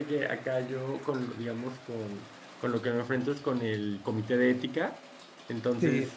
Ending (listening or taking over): listening